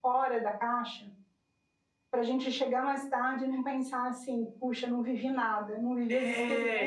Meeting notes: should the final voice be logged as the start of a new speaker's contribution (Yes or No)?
Yes